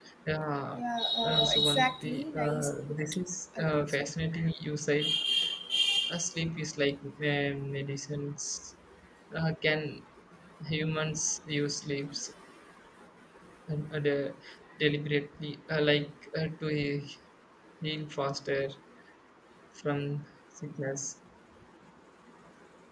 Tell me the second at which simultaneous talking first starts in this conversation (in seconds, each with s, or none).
1.2 s